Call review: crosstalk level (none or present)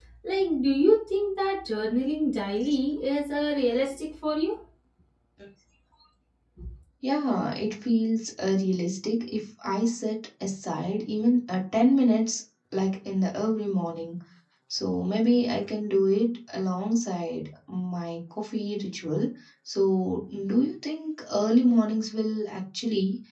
none